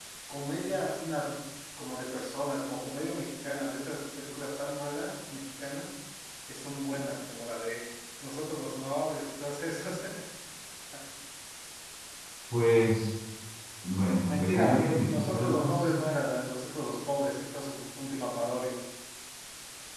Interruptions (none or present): present